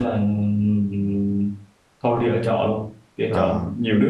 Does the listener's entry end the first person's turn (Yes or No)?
No